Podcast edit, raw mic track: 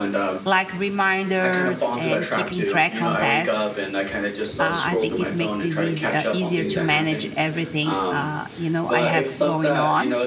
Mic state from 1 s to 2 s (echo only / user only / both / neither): both